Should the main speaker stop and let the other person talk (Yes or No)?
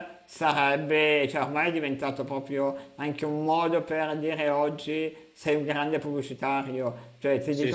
No